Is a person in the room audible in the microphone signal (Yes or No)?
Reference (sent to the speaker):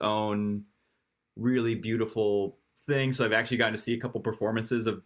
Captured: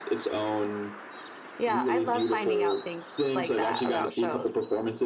Yes